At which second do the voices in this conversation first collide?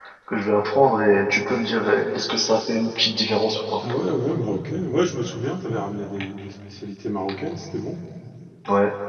none

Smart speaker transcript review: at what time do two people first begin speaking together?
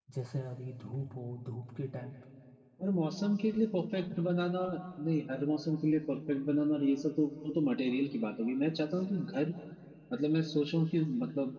none

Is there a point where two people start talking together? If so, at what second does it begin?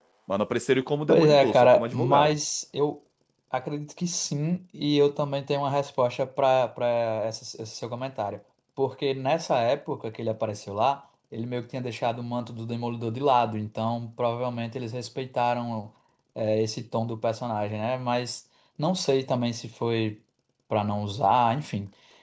1.1 s

